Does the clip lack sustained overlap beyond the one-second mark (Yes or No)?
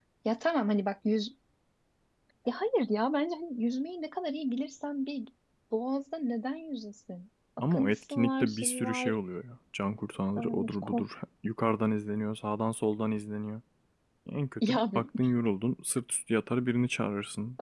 No